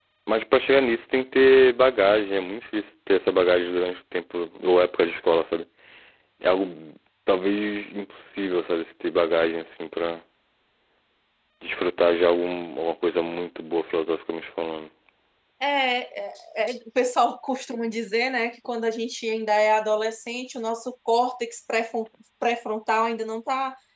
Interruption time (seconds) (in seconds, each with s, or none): none